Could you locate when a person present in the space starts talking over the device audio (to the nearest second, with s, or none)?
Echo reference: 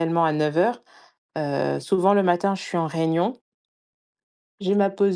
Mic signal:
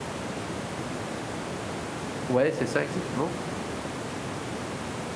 2 s